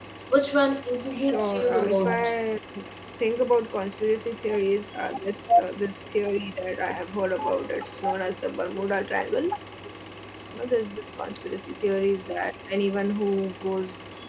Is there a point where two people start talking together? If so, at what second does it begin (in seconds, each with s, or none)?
1.1 s